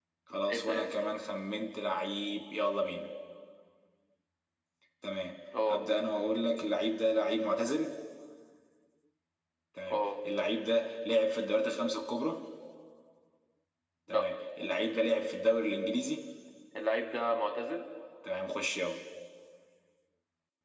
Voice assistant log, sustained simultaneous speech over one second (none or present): none